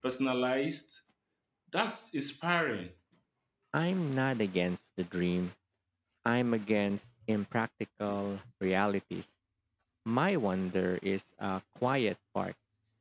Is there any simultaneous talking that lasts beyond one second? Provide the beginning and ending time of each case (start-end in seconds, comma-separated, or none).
none